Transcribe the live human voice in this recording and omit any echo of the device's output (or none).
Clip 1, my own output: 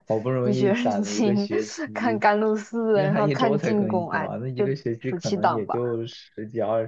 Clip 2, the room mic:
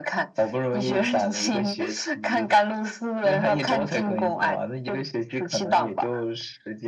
none